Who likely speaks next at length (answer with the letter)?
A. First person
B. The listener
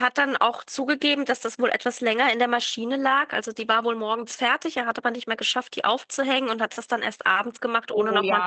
B